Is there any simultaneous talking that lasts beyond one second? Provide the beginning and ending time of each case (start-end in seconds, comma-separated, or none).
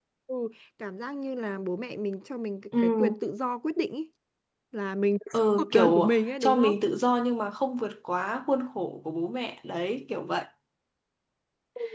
5.3-6.8